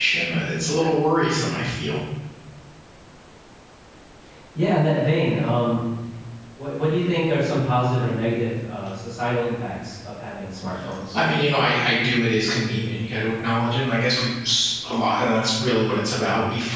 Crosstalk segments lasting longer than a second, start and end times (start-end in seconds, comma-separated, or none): none